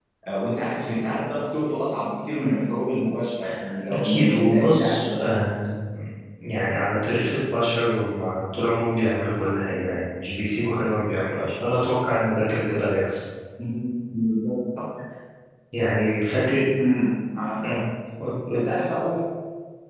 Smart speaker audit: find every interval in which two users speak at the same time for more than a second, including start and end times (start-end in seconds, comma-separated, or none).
3.9-5.2